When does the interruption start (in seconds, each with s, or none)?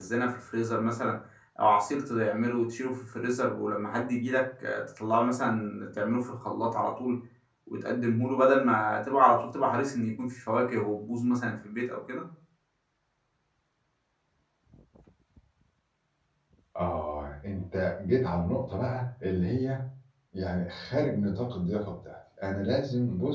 none